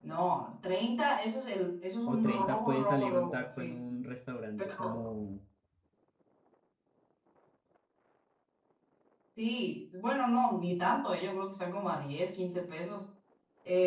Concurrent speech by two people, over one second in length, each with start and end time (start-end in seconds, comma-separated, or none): 2.1-3.8